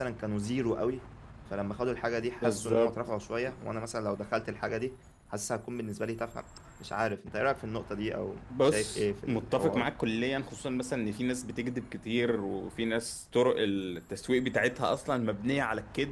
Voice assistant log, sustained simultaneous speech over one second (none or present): present